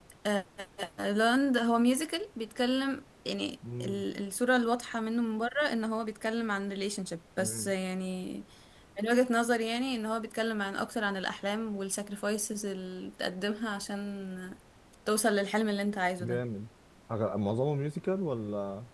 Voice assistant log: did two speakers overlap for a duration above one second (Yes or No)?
No